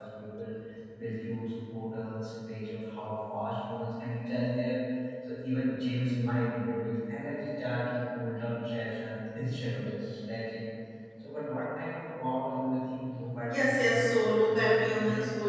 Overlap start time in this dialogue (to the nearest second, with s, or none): 13 s